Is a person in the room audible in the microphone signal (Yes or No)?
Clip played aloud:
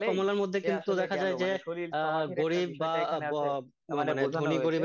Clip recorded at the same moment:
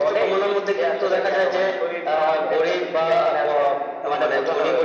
No